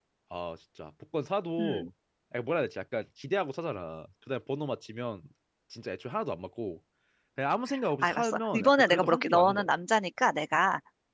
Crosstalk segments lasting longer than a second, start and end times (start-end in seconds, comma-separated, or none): 8.0-9.7